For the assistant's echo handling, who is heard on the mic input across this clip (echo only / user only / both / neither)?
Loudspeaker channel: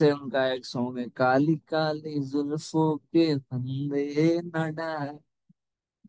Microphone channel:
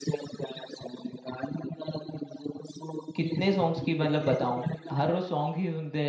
both